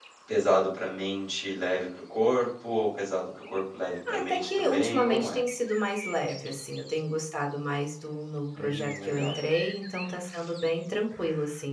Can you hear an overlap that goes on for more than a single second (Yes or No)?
Yes